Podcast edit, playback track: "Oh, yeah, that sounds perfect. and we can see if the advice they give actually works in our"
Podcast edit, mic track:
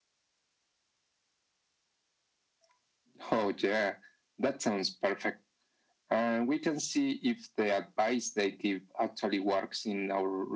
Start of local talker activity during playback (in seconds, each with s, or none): none